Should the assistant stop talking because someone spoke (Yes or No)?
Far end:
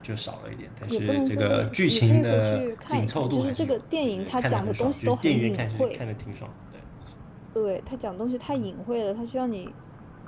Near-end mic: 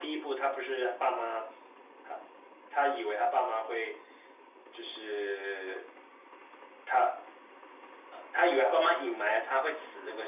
Yes